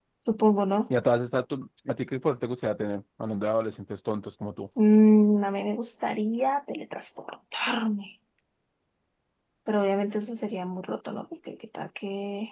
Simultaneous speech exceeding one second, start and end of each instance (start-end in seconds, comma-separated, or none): none